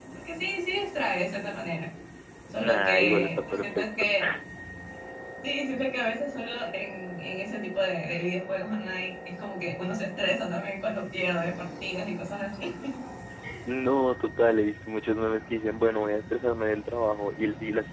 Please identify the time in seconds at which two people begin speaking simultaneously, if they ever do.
3 s

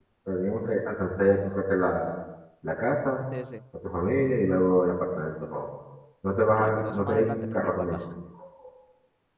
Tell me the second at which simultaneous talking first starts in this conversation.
7 s

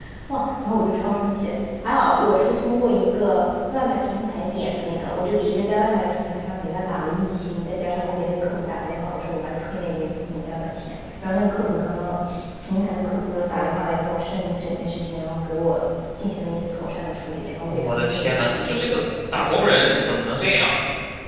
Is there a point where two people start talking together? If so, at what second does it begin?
18 s

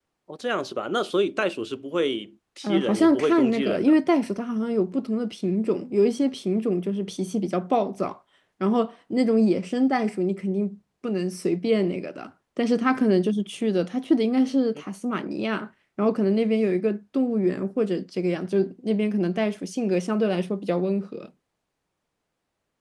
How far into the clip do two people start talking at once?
3 s

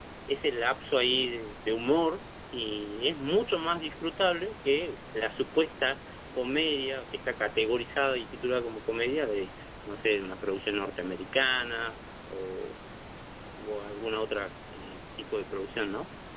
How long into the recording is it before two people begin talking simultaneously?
none

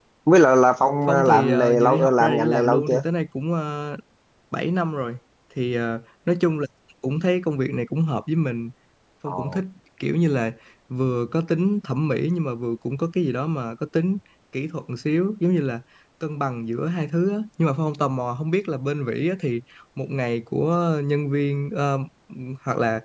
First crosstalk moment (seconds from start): 1 s

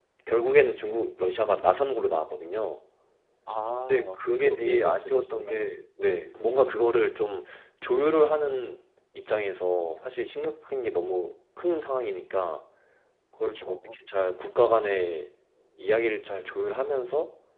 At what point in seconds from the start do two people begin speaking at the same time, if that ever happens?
4 s

